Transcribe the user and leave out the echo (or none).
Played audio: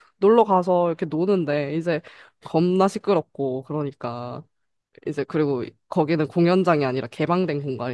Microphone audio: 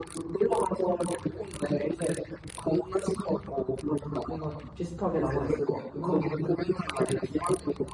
뭔가 비슷하게 남아 있을 것 같긴 하네요.